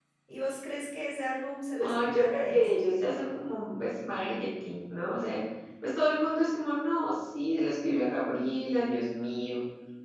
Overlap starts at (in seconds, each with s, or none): 1.7 s